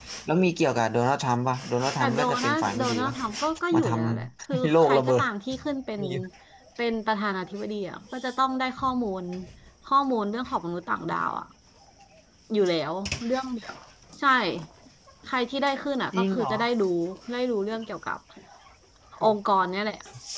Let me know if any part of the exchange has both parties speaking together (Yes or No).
Yes